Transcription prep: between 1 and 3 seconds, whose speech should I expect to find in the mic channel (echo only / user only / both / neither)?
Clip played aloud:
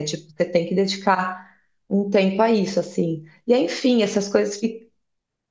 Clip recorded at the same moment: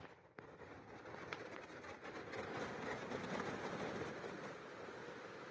neither